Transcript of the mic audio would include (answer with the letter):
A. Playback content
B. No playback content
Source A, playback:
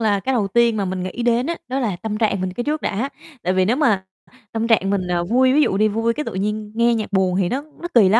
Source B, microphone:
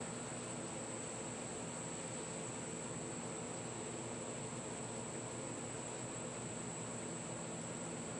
B